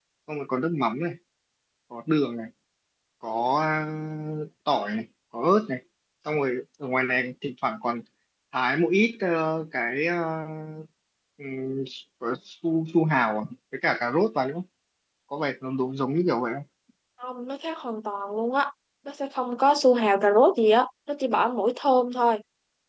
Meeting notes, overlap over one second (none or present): none